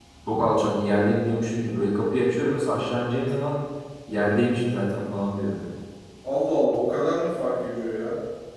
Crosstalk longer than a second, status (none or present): none